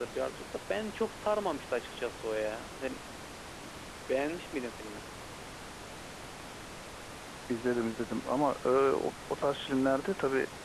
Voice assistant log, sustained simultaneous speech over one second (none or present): none